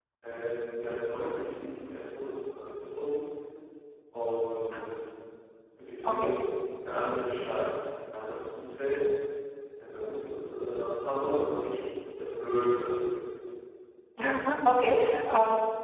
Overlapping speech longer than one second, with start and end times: none

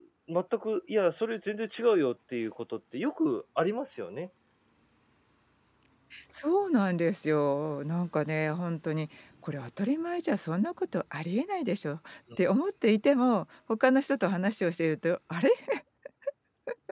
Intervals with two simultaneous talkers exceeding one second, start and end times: none

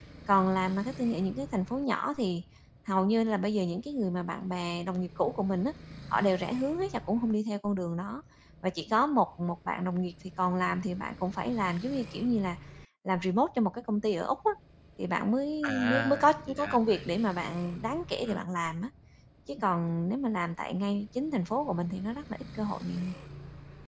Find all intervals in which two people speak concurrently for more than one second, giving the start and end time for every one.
15.6-17.0

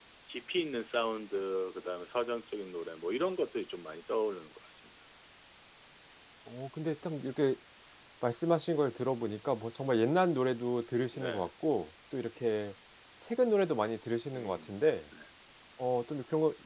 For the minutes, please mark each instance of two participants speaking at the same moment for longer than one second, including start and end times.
none

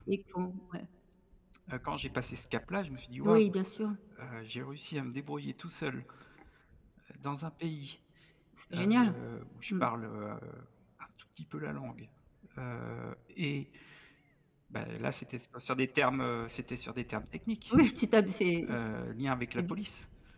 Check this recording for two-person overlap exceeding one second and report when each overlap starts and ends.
none

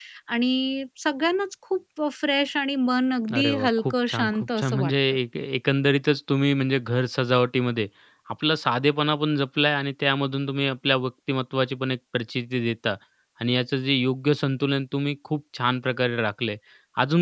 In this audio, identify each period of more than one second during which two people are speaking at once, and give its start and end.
3.3-4.9

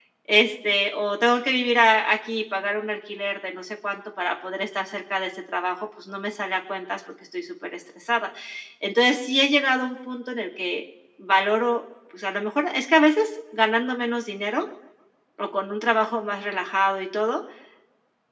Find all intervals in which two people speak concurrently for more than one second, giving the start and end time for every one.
none

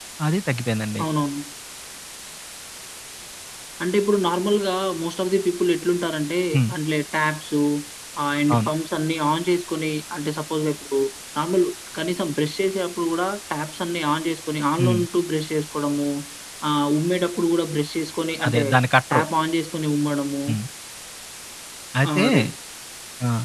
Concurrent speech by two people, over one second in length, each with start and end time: none

